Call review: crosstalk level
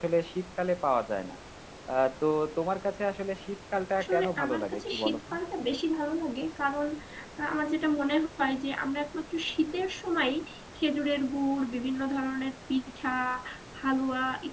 present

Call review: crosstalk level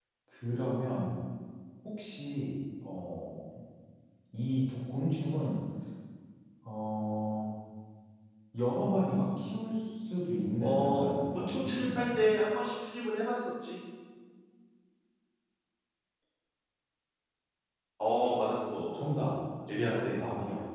present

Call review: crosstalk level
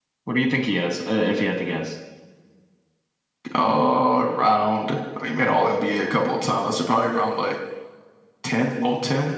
none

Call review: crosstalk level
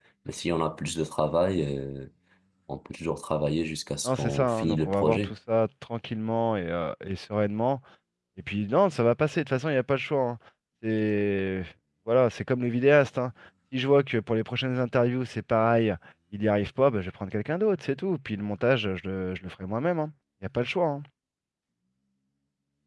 present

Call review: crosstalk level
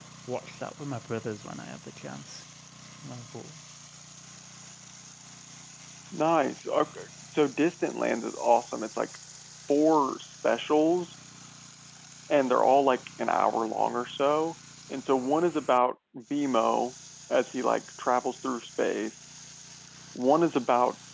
none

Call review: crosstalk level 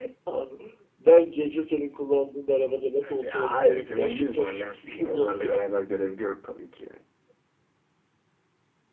present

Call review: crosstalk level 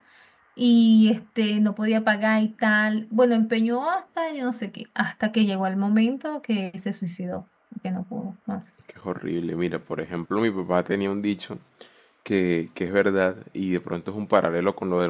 none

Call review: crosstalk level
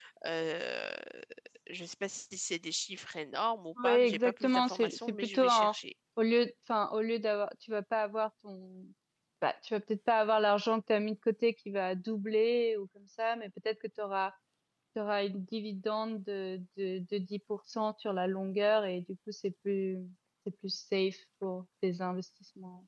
present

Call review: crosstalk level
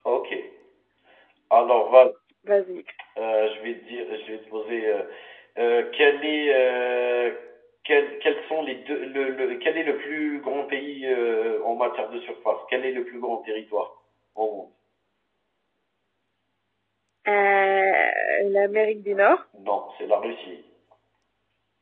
none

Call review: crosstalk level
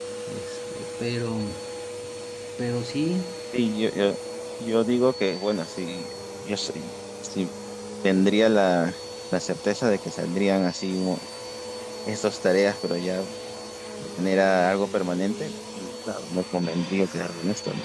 none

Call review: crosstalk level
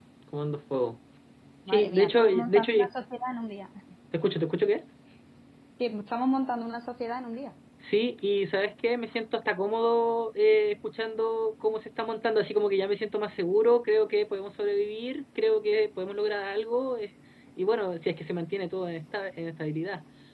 present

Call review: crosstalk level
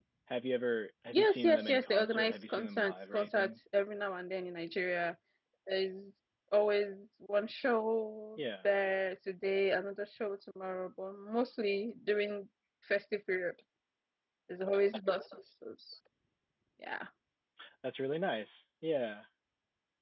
present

